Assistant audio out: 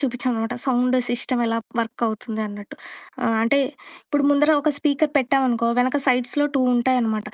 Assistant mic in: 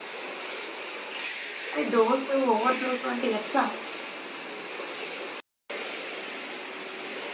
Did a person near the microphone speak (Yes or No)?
Yes